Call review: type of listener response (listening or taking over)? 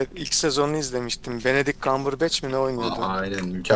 taking over